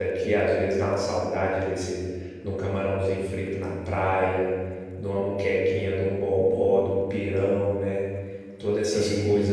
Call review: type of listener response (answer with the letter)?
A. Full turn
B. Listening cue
B